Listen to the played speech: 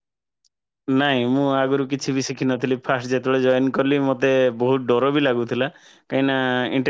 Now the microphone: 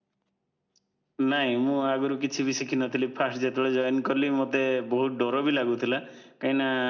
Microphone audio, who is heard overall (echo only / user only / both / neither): echo only